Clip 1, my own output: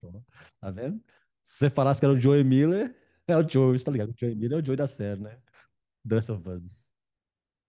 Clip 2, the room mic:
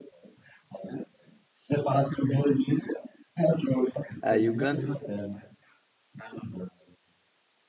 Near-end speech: present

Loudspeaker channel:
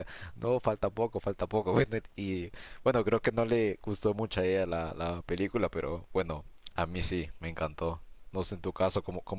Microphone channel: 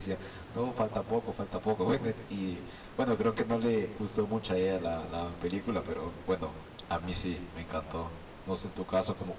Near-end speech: none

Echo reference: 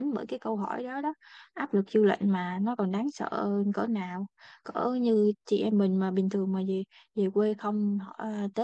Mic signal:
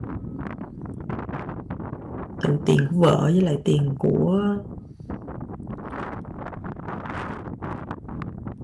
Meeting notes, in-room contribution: present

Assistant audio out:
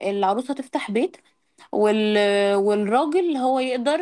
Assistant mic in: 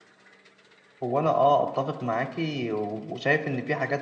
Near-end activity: present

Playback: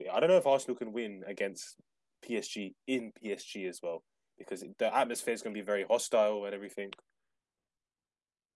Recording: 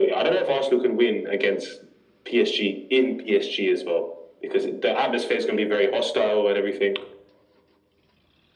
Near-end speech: none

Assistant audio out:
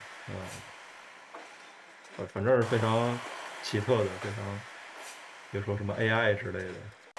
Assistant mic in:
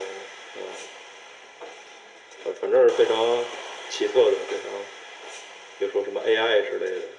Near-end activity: none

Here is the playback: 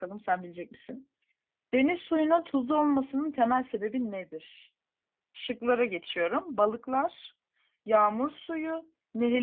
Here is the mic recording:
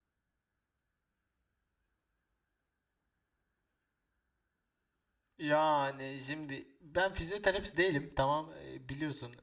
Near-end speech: present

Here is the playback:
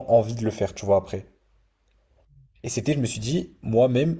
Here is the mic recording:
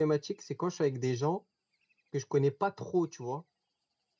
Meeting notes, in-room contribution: present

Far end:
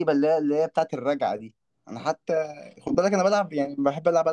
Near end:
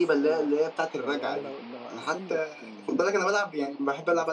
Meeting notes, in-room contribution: present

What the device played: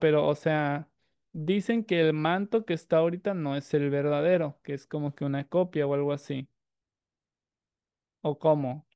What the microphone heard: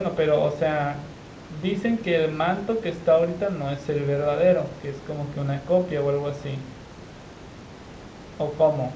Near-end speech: none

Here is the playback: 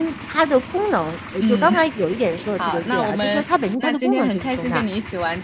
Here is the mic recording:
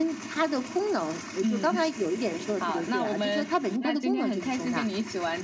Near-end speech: none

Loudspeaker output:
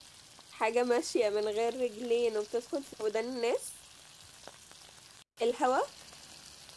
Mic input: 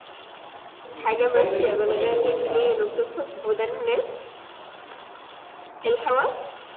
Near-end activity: present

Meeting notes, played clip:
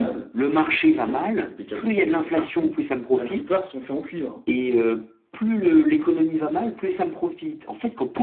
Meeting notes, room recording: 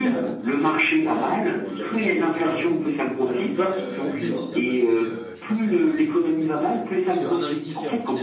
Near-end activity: present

